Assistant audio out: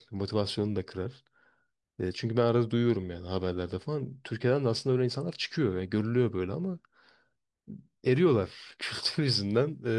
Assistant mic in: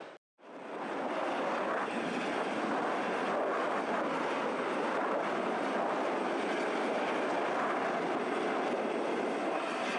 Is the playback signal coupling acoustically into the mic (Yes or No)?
No